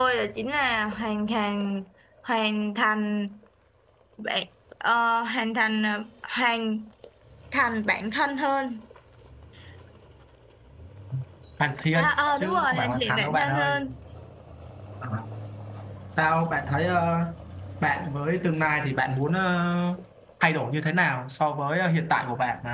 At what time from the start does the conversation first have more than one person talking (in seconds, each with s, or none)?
12.0 s